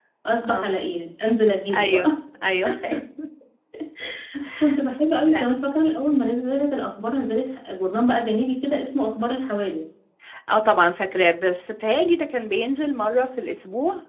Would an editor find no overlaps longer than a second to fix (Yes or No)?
Yes